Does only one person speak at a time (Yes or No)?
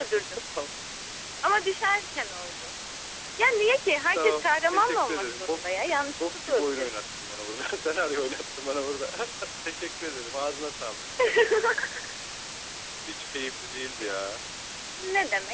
No